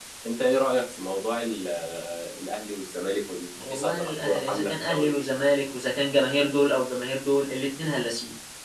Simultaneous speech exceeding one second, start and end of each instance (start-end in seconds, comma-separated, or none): 3.6-5.2